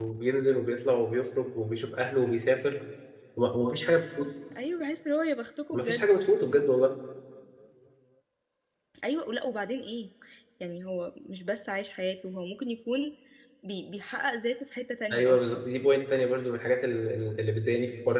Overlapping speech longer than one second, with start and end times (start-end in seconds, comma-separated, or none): none